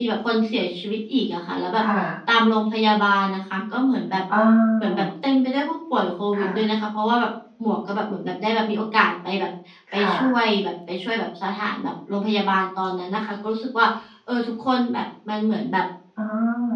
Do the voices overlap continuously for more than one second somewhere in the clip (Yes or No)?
No